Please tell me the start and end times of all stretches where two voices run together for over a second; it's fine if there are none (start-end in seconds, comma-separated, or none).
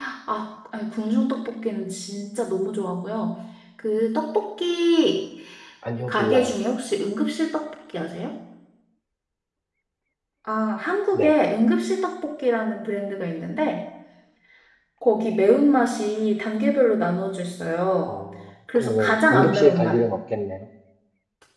18.8-20.0